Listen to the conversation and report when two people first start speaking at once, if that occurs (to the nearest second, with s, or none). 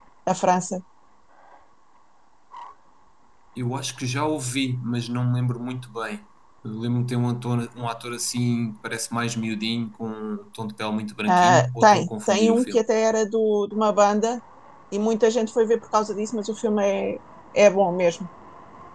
11 s